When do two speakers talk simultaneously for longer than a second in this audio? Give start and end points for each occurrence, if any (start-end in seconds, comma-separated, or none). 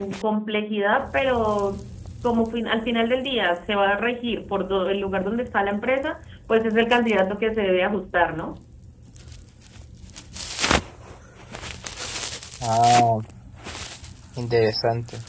none